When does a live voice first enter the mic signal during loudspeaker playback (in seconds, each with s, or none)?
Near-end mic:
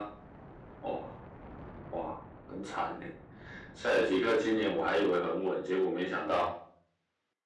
none